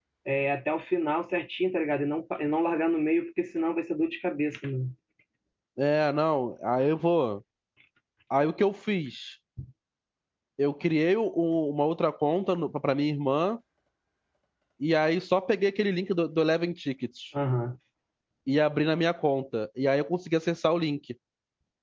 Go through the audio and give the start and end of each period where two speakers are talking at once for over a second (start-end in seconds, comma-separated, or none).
none